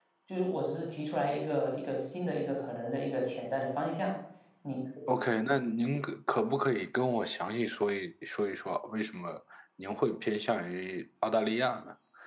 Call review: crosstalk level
none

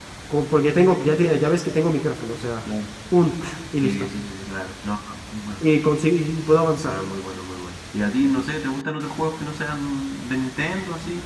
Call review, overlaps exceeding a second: none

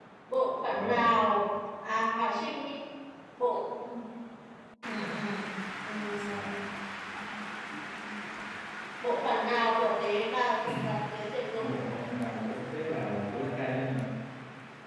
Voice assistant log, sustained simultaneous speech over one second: none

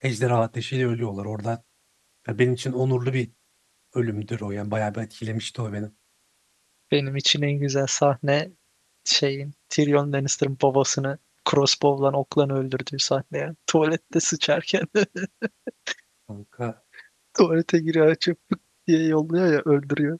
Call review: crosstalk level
none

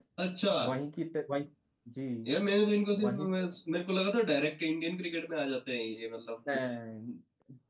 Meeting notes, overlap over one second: none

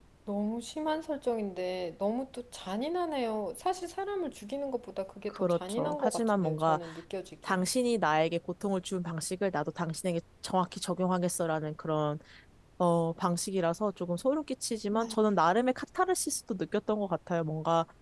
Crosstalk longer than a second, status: present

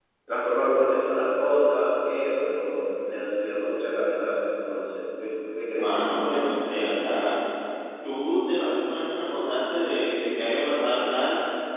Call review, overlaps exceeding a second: none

